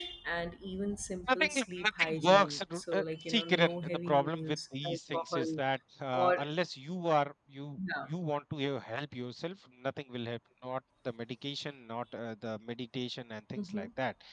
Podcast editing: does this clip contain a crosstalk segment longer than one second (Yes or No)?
Yes